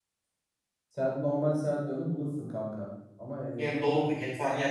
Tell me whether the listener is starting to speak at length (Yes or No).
Yes